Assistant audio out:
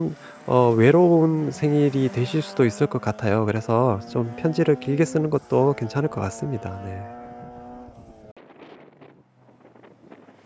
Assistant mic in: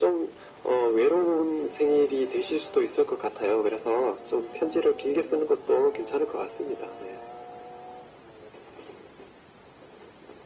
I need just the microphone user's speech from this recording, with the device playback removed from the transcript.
none

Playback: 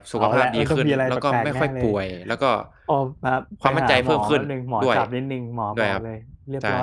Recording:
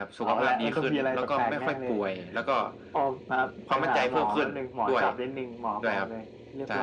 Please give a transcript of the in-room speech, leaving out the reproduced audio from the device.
none

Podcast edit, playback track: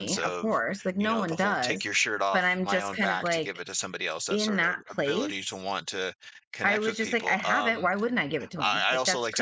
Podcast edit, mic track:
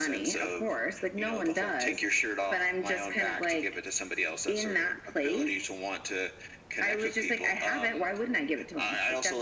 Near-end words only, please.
none

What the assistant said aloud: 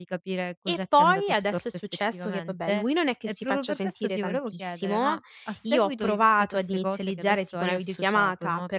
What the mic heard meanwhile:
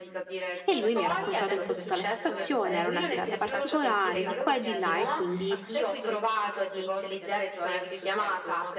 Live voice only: E lui mi ha raccontato un po' tutta la situazione, era una serata particolare, di qua e di là, e quindi

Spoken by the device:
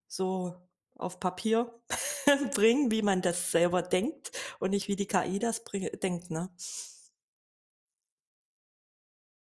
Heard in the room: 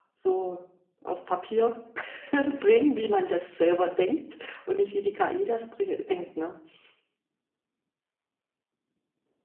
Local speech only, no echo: none

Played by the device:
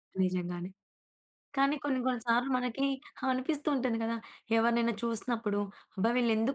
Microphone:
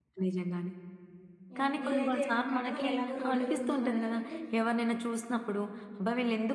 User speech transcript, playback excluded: యాహ్! నేనైతే ఏమంటా అంటే వాళ్ళు ఎలాగో రోడ్లో తిరుగుతున్నారు గాబట్టి,

